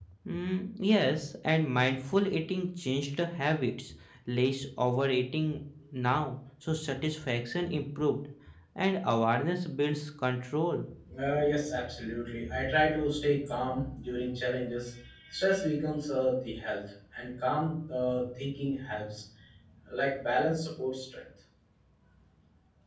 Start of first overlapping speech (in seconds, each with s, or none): none